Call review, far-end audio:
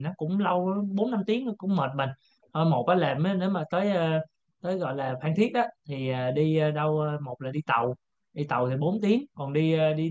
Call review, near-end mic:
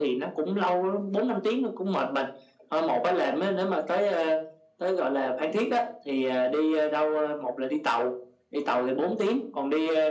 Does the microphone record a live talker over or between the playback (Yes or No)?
No